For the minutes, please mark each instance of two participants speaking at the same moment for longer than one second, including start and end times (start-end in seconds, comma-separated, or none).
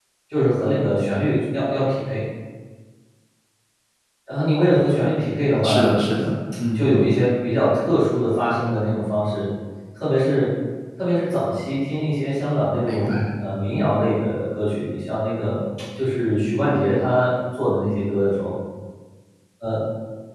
none